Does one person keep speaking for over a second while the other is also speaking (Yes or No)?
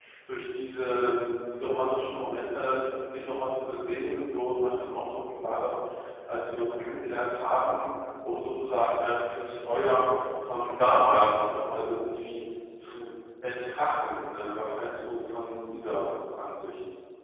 No